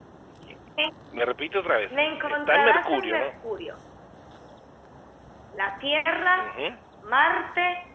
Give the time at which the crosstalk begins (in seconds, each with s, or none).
1.9 s